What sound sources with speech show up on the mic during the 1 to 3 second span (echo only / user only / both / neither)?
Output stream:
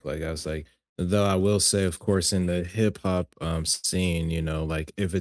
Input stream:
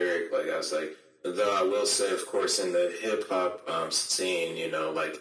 echo only